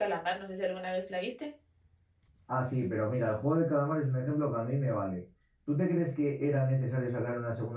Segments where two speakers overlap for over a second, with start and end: none

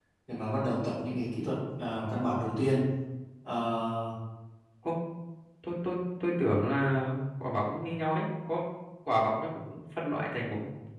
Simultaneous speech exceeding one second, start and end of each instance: none

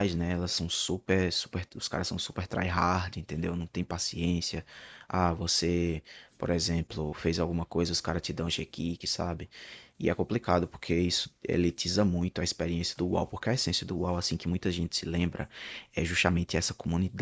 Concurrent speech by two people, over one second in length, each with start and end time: none

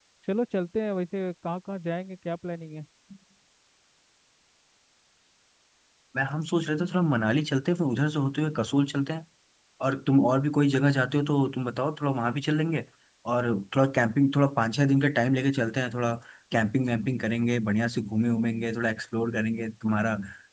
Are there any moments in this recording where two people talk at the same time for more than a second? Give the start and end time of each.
none

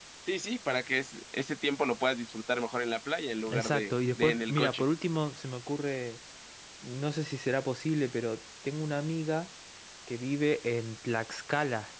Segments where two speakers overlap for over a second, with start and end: 3.5-4.8

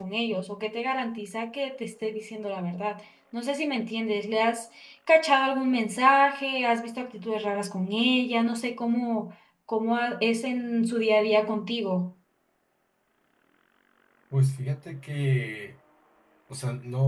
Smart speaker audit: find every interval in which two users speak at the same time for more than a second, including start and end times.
none

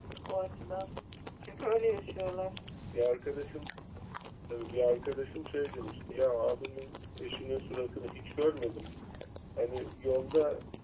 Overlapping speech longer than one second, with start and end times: none

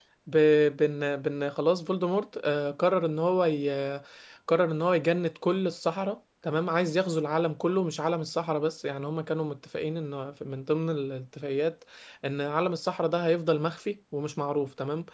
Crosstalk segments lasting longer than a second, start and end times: none

